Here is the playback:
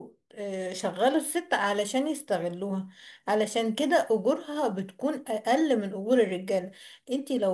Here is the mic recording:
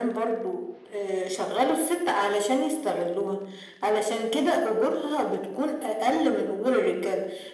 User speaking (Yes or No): No